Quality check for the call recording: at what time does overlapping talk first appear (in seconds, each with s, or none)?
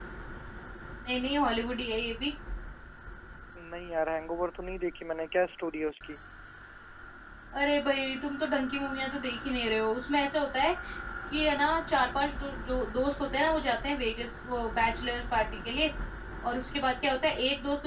none